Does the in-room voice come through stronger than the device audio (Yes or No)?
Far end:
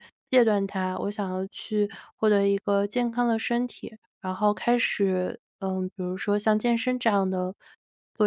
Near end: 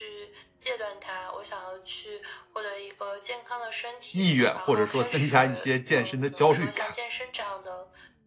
Yes